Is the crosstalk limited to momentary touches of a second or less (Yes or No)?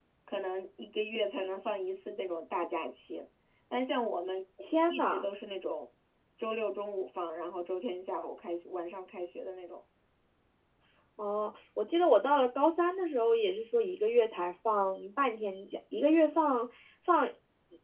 Yes